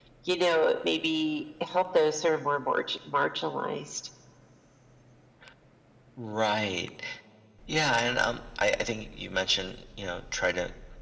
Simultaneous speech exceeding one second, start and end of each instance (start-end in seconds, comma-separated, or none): none